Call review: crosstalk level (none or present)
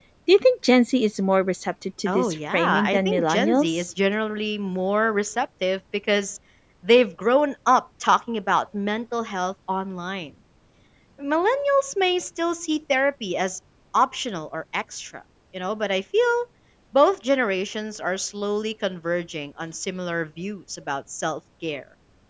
present